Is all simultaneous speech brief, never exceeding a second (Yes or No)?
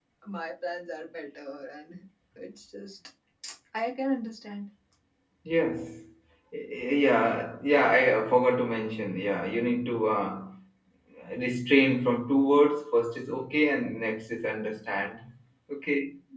Yes